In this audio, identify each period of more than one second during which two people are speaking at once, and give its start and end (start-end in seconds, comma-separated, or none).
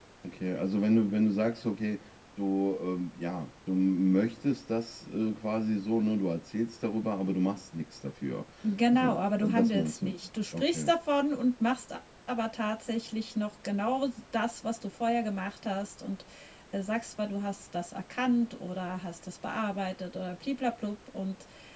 8.9-10.1